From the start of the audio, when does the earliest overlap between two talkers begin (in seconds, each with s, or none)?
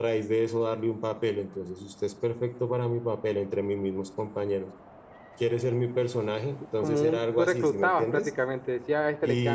6.8 s